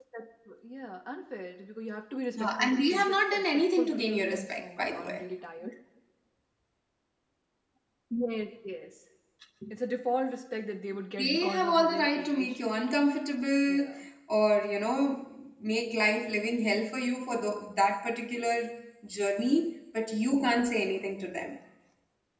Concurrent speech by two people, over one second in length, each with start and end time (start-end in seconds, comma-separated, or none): 2.4-5.3, 11.2-12.6